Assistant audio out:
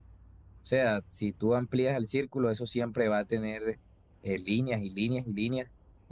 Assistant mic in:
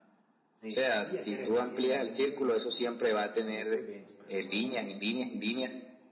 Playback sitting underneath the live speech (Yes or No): No